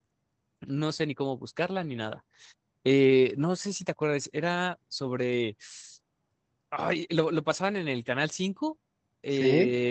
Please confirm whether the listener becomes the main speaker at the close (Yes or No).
No